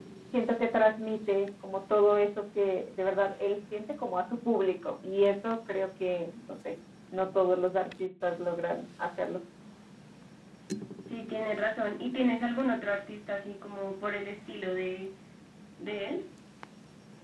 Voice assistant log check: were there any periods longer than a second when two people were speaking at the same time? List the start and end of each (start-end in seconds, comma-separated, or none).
none